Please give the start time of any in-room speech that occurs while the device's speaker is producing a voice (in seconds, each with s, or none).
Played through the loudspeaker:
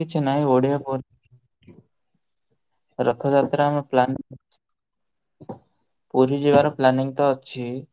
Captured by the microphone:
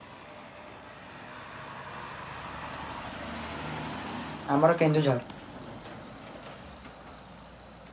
4.6 s